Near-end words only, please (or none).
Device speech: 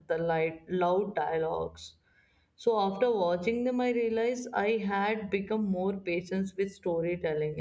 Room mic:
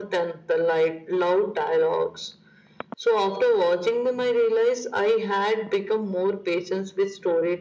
none